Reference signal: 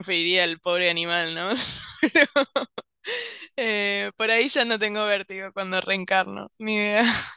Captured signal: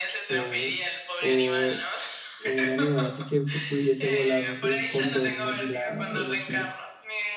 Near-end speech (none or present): present